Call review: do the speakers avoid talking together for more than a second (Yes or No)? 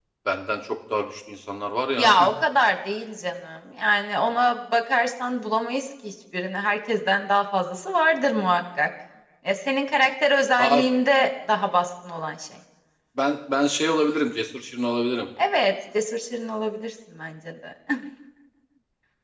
Yes